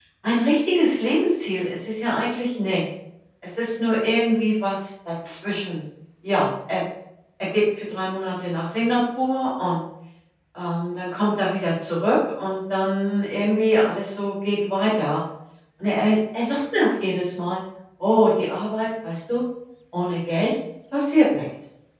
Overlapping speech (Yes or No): No